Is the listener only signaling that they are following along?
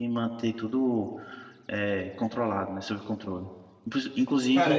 No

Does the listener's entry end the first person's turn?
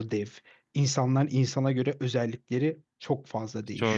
Yes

